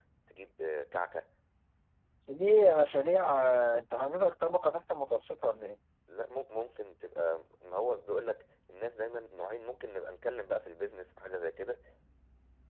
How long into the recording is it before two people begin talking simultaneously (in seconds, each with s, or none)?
none